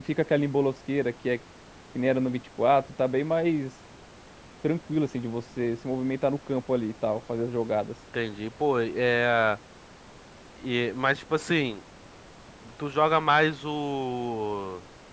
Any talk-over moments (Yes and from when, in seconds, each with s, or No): No